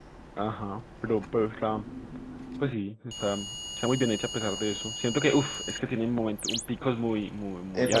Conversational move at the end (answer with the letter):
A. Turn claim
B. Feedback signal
A